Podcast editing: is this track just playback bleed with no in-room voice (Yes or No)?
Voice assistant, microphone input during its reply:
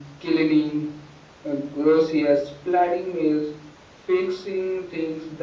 Yes